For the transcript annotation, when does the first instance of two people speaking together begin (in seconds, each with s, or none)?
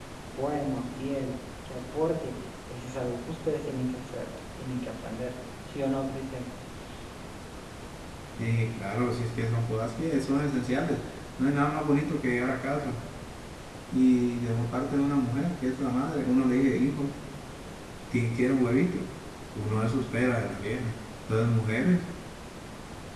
none